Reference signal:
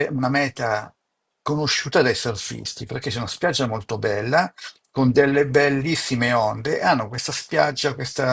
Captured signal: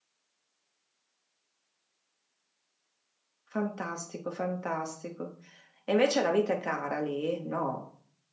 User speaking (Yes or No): Yes